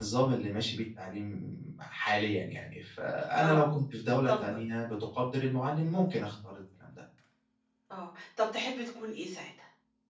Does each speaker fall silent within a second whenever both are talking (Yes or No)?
Yes